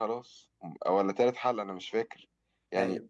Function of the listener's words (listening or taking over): listening